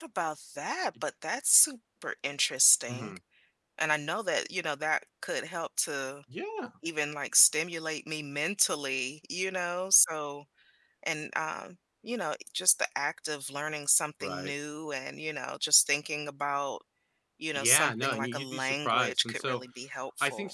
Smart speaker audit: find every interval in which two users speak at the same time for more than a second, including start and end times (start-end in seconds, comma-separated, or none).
17.5-19.6